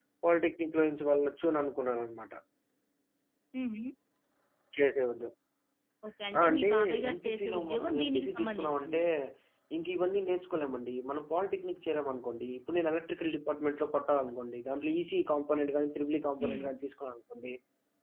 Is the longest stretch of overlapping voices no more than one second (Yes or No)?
No